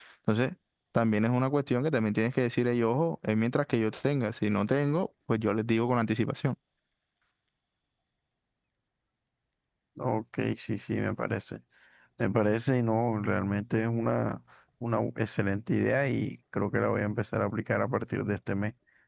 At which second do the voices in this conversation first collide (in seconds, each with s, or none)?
none